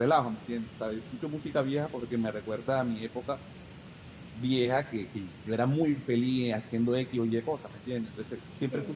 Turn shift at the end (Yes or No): No